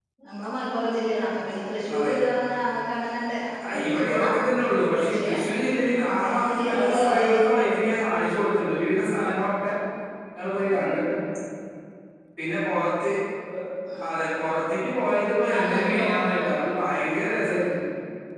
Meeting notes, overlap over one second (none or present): present